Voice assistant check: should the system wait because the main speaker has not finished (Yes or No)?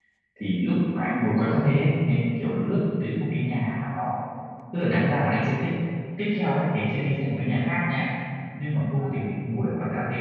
Yes